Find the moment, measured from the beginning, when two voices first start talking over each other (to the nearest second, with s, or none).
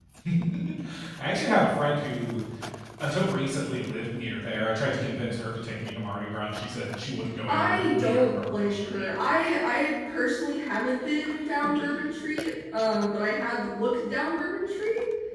7 s